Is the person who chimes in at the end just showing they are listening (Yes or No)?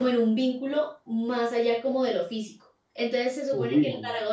Yes